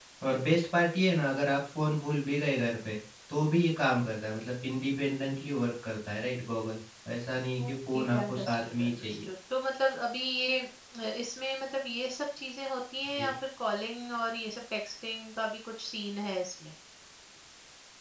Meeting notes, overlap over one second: present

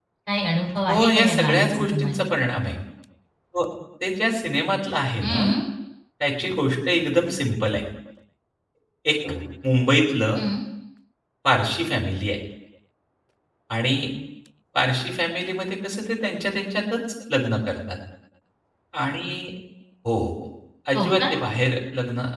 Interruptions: present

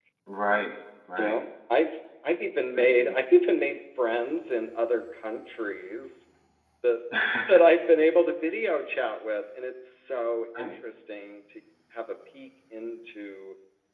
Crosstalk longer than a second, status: none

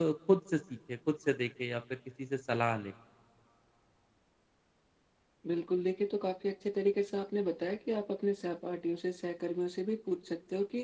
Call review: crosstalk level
none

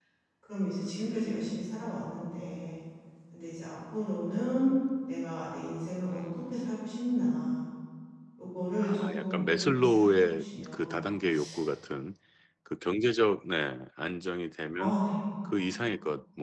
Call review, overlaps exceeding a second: present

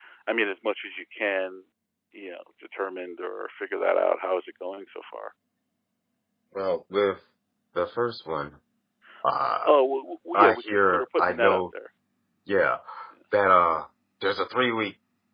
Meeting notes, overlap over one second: present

